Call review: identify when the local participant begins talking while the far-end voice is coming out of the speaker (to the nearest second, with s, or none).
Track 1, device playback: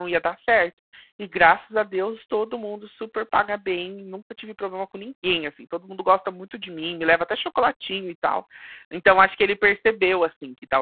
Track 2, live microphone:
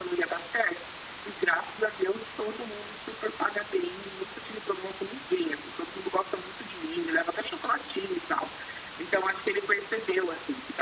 none